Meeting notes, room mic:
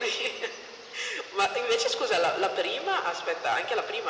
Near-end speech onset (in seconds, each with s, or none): none